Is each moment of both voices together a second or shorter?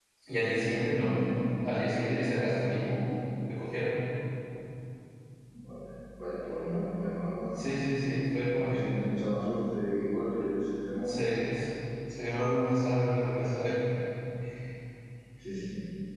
Yes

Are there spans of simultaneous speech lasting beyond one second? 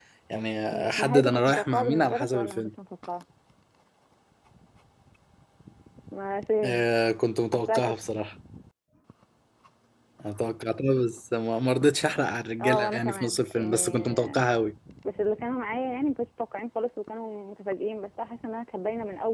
Yes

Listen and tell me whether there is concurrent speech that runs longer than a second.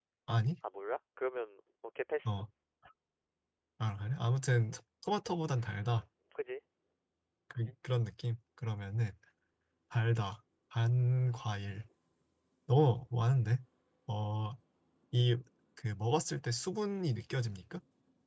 No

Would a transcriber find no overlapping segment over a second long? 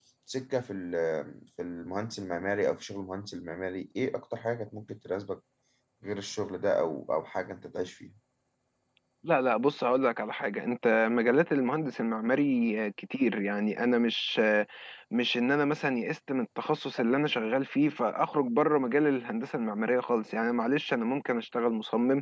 Yes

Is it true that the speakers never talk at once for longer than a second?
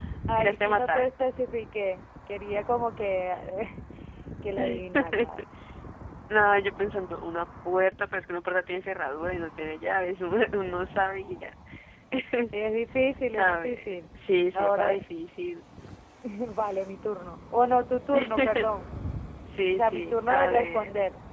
No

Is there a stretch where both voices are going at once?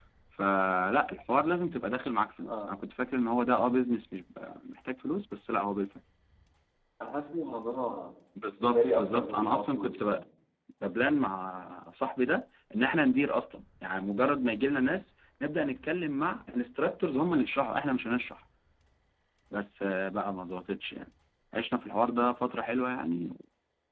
Yes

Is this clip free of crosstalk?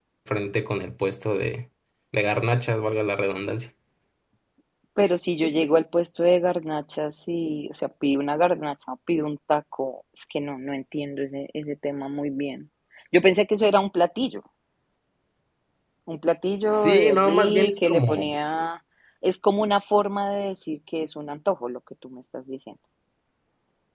No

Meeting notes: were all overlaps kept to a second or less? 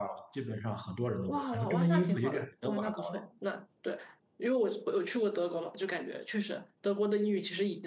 No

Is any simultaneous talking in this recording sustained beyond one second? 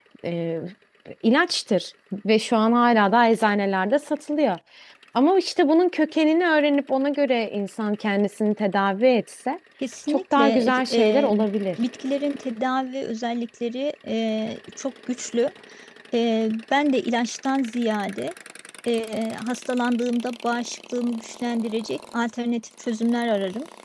Yes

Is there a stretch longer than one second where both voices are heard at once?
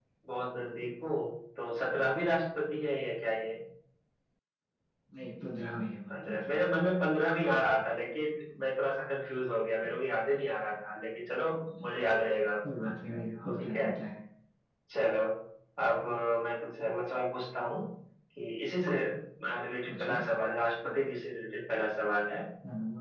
No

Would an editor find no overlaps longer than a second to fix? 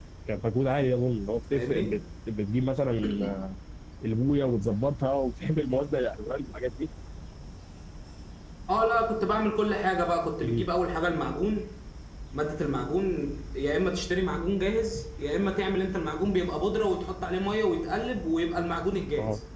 Yes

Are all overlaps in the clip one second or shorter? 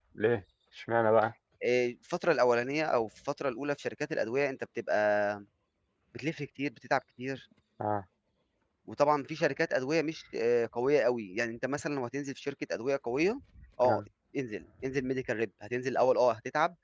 Yes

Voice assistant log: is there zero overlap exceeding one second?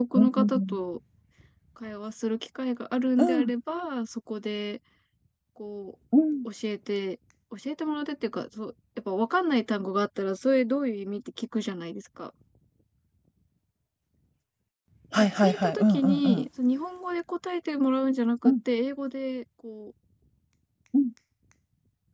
No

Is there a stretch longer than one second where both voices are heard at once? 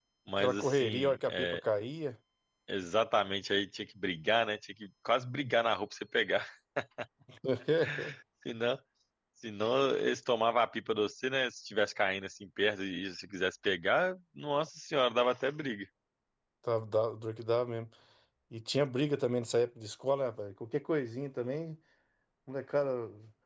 Yes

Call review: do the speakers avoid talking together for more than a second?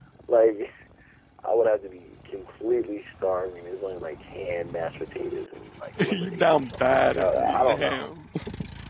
No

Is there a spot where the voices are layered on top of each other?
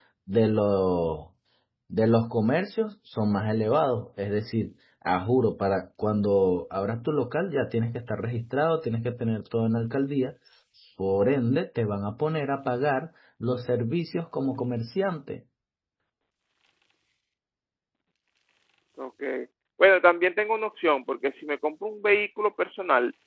No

